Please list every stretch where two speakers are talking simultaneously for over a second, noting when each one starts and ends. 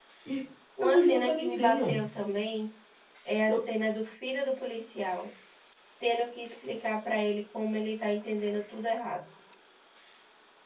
0.8-2.0

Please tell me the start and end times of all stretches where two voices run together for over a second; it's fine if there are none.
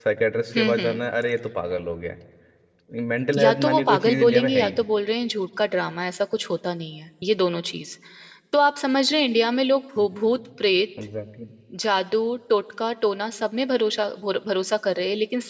3.4-4.8

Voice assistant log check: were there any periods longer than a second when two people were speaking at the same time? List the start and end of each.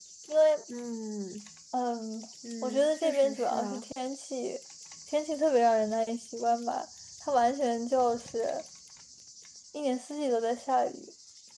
2.6-3.8

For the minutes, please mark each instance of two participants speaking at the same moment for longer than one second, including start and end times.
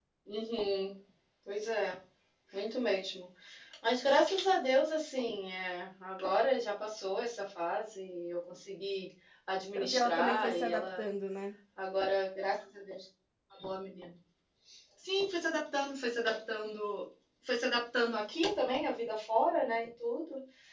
9.8-11.0

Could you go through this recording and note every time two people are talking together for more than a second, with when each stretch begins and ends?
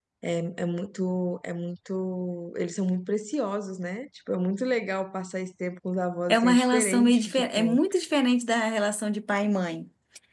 6.3-7.8

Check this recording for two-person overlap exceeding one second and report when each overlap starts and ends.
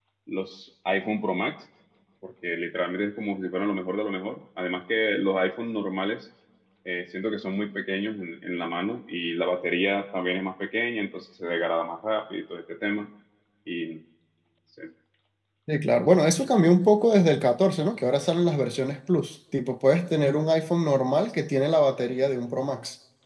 none

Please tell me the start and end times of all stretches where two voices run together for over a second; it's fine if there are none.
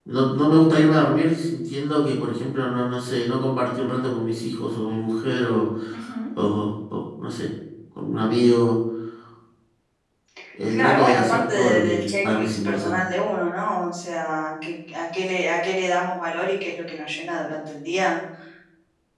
10.7-13.0

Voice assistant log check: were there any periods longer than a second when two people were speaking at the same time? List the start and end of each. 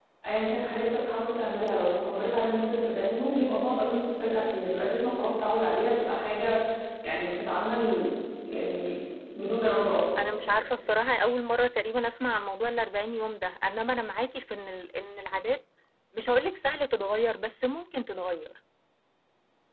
none

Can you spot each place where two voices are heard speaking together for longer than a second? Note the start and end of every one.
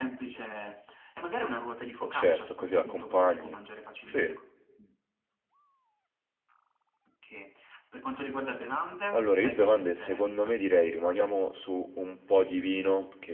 2.0-3.6, 9.1-10.6

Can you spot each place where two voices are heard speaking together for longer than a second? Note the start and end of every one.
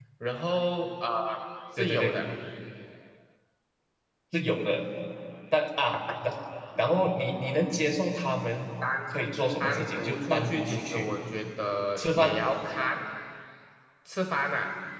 9.6-11.0

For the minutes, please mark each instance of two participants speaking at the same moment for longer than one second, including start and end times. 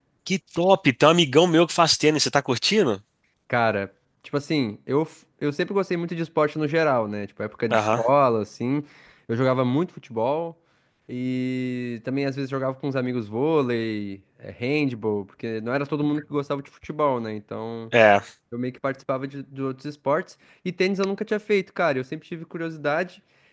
none

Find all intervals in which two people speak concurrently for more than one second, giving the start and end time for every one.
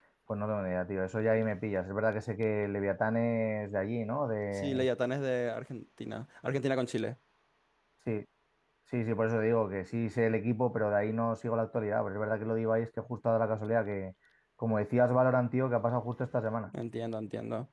none

